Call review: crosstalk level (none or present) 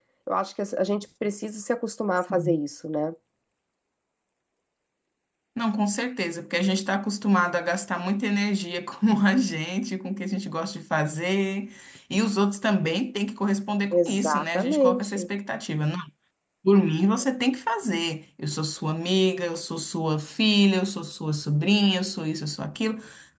present